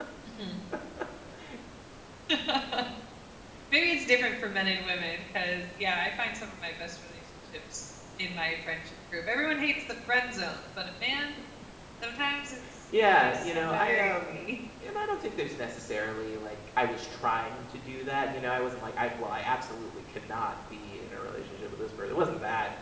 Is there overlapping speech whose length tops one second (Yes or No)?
Yes